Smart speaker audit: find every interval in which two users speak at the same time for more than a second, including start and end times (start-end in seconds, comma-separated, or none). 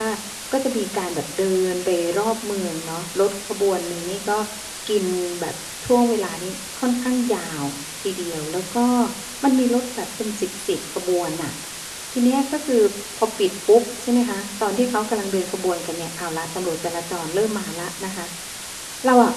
none